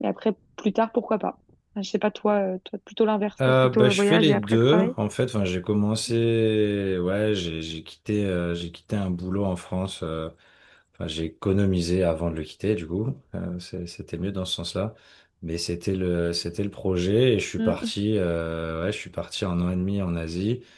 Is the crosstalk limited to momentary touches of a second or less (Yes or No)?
No